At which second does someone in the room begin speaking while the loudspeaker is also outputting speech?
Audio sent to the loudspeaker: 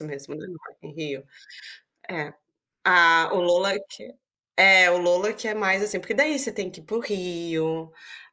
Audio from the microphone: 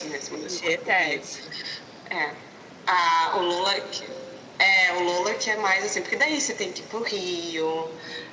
0.5 s

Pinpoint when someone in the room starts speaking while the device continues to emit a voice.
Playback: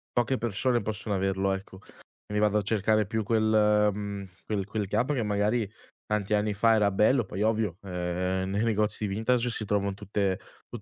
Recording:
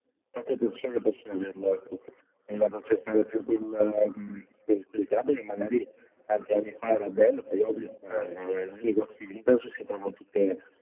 8.1 s

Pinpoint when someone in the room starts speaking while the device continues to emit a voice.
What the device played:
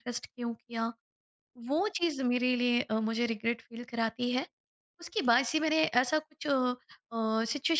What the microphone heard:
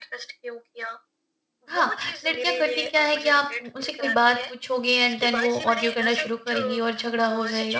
1.7 s

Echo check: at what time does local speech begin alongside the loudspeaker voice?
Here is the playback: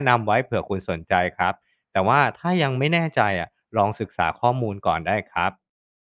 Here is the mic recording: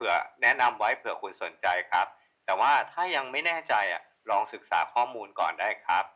none

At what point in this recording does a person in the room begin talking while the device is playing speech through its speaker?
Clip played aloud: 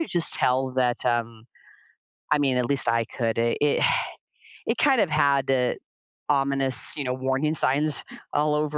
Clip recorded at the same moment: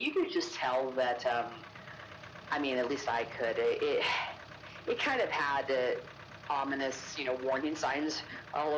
none

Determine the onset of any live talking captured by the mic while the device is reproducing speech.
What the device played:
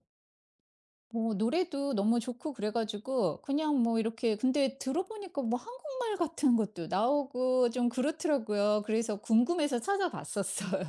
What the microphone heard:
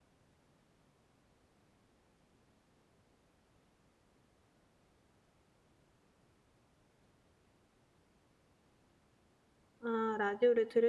9.8 s

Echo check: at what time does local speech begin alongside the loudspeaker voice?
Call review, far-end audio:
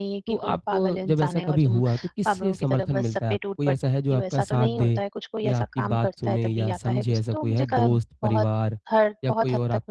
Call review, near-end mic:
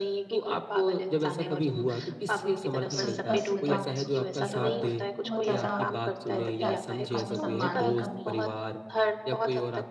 2.5 s

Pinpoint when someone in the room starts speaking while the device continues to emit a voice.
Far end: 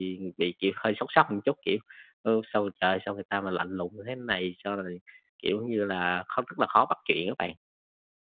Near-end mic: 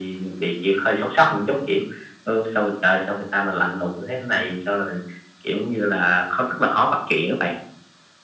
none

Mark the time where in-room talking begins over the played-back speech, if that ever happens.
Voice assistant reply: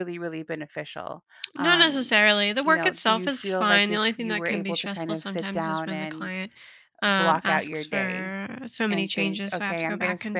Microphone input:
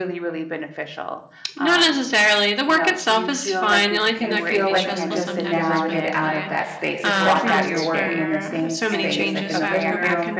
4.1 s

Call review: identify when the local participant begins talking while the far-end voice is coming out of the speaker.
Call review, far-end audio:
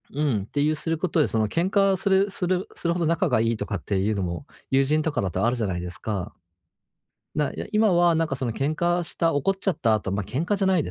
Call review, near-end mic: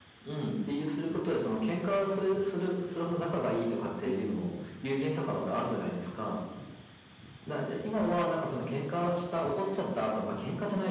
4.0 s

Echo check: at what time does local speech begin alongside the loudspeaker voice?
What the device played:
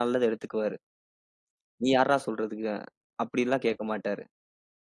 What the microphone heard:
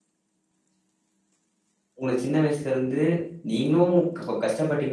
2.0 s

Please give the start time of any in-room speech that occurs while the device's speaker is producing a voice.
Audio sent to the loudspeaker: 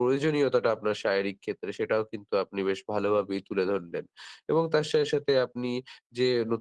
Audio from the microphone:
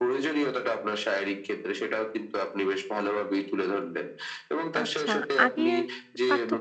4.8 s

